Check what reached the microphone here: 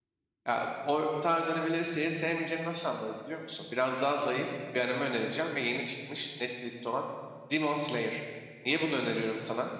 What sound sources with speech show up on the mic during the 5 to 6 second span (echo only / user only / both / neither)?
user only